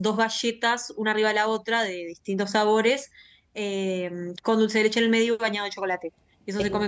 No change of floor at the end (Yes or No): Yes